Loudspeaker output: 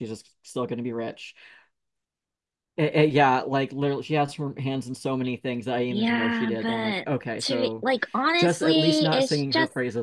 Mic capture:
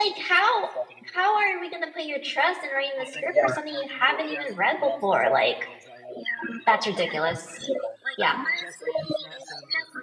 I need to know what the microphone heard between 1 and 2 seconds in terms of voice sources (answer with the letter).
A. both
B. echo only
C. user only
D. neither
A